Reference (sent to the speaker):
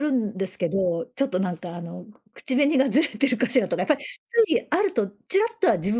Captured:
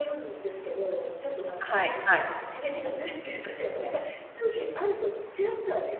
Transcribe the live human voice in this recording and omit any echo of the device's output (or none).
はいはい。